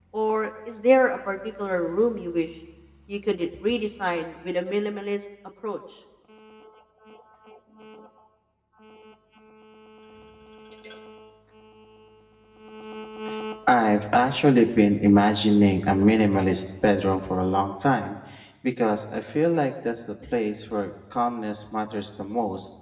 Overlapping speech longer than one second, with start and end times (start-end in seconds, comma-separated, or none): none